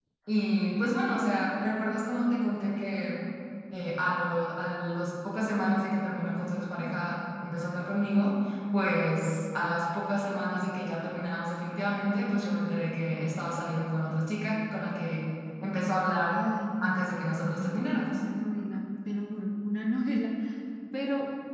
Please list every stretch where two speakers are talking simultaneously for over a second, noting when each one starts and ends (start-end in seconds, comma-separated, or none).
16.8-18.2